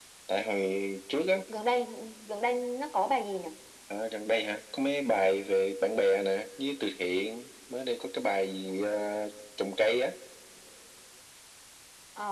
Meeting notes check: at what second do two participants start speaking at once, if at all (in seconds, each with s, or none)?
none